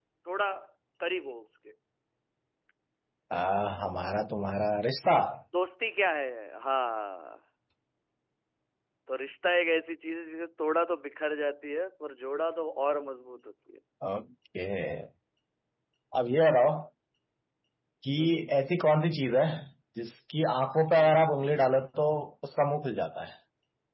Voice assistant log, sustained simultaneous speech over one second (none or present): none